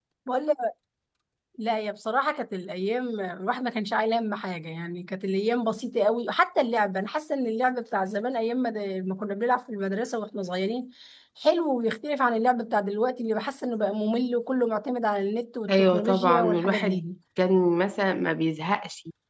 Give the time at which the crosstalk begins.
15.7 s

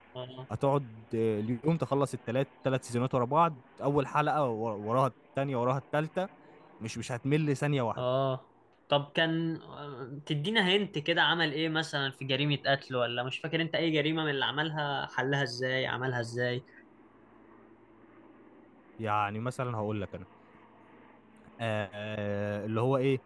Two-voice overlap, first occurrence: none

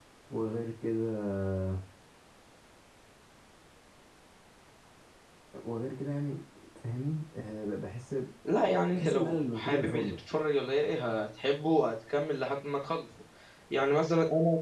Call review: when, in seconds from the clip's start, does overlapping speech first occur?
8.9 s

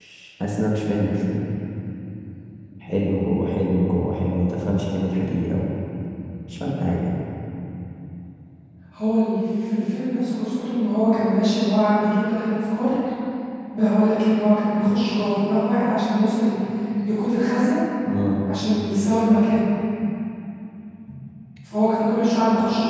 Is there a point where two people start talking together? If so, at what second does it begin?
none

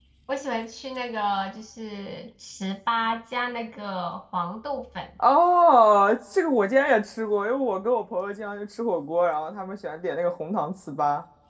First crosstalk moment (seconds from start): none

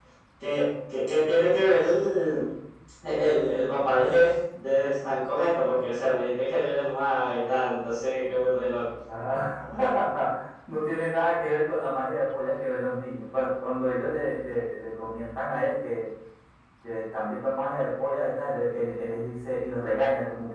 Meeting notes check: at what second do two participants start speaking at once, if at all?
none

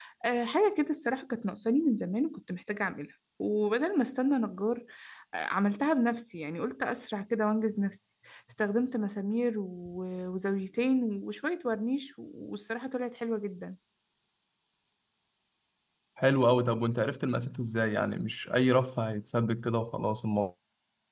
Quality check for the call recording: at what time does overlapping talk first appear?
none

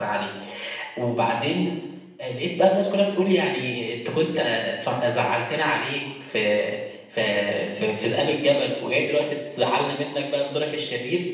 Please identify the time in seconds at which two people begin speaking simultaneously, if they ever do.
none

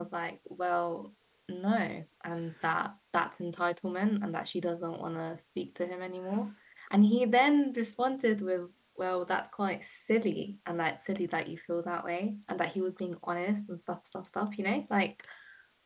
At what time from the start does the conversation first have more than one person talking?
none

